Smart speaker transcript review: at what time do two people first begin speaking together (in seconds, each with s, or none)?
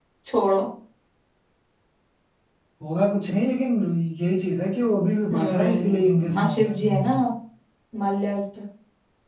5.3 s